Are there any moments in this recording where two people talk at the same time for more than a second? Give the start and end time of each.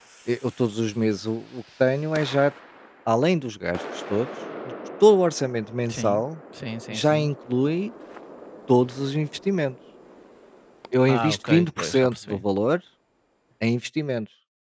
11.1-12.4

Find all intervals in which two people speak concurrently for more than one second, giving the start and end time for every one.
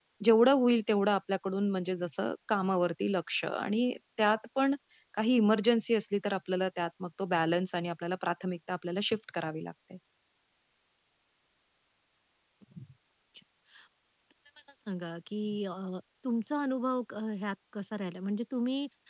none

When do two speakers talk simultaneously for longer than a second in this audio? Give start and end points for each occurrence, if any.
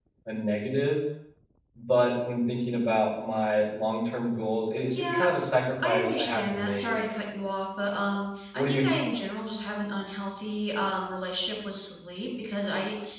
5.8-7.0

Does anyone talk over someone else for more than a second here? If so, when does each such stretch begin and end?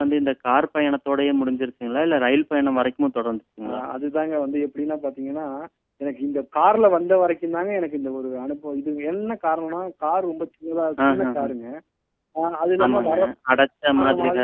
none

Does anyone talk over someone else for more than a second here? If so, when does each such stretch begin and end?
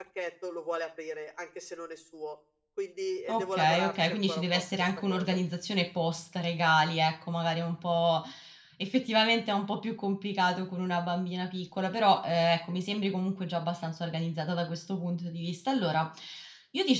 3.3-5.4

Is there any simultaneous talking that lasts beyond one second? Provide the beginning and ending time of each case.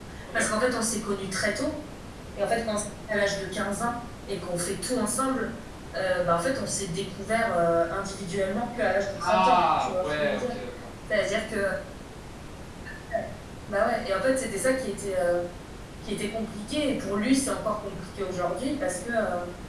9.2-10.6

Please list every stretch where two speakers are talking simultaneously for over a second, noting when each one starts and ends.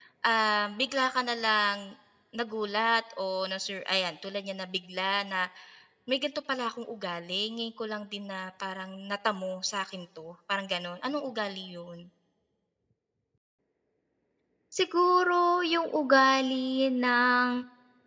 none

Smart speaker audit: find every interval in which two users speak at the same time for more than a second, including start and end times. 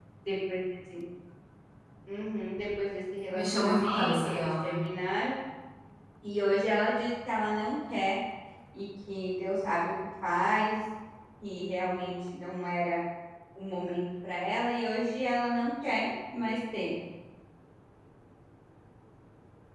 3.3-4.8

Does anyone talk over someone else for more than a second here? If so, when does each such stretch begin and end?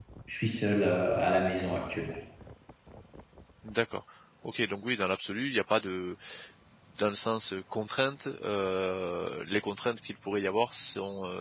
none

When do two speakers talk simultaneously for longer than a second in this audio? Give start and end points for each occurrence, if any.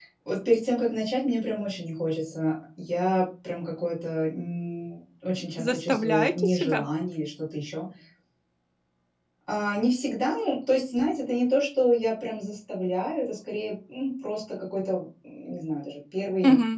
5.6-6.8

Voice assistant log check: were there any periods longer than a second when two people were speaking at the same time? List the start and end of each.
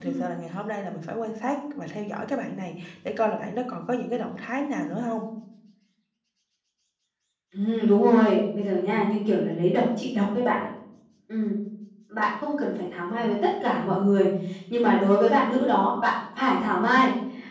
none

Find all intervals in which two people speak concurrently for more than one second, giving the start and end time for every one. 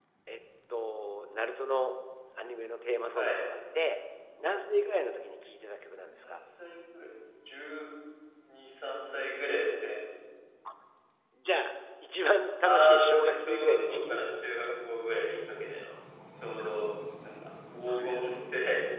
12.7-14.2

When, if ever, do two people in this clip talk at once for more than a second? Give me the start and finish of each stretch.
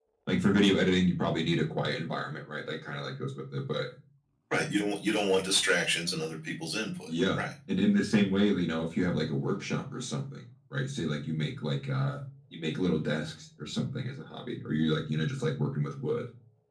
none

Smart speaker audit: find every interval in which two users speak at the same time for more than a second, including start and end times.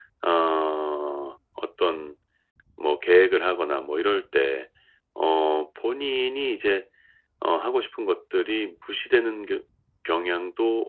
none

